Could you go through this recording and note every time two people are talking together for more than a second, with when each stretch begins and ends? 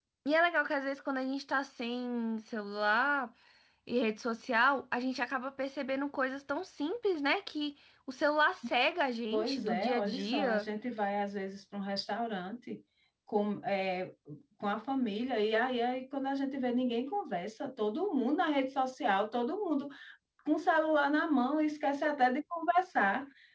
9.3-10.7

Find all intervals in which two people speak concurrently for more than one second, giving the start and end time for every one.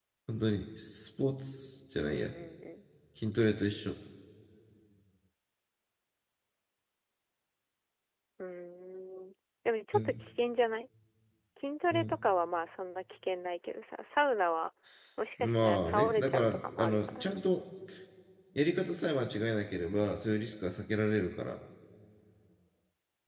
15.4-17.3

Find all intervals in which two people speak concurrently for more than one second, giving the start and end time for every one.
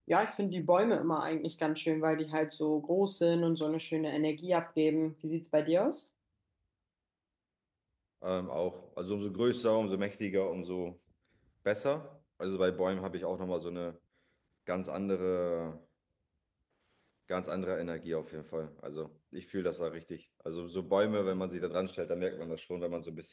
none

